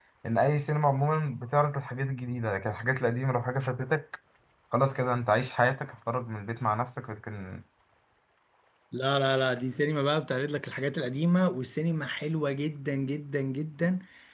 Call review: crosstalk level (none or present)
none